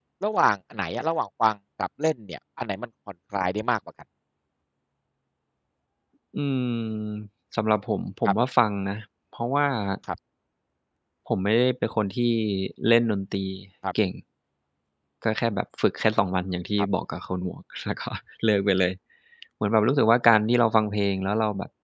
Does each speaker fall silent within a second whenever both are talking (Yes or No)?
Yes